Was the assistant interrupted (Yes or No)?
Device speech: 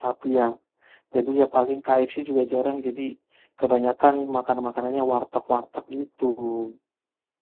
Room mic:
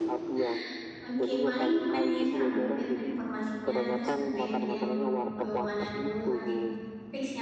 Yes